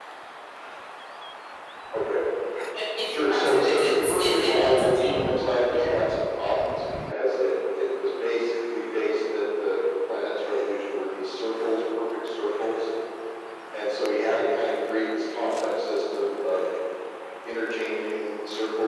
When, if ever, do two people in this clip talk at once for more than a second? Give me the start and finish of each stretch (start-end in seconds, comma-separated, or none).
3.1-5.2